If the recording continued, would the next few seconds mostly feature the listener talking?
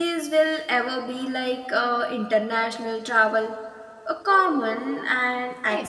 Yes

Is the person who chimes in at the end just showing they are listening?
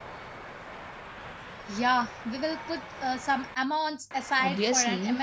No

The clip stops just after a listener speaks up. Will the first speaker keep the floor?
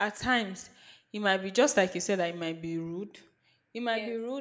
Yes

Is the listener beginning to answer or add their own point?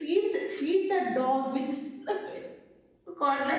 Yes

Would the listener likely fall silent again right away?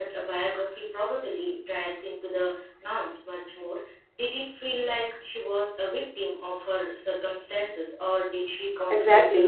No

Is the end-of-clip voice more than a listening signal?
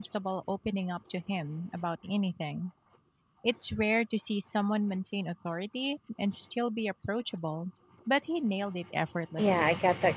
Yes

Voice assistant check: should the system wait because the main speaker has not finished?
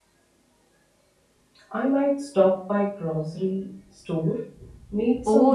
No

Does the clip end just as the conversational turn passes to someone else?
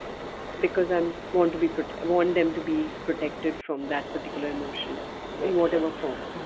Yes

